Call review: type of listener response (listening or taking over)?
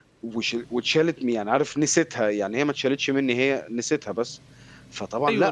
taking over